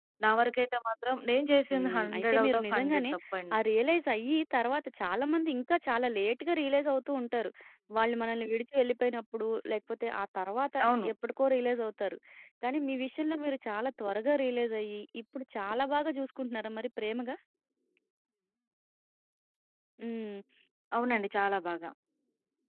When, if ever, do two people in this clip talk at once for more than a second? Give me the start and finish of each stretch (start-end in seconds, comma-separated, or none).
1.7-3.0